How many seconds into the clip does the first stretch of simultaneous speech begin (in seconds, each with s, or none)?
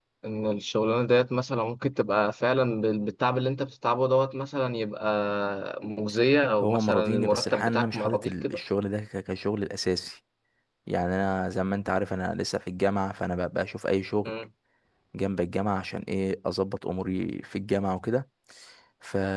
6.6 s